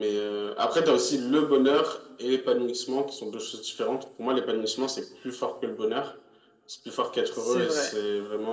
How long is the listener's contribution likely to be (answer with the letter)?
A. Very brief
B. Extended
A